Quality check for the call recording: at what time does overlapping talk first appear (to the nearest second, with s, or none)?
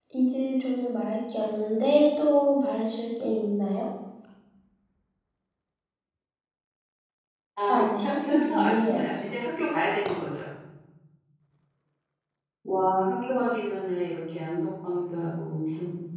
8 s